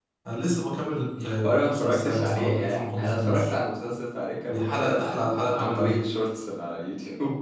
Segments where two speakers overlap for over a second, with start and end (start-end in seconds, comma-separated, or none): 1.4-3.5, 4.5-6.0